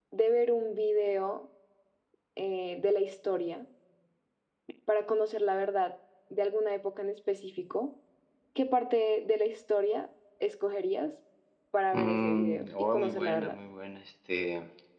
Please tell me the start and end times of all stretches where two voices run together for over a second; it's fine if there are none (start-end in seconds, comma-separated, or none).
11.9-13.6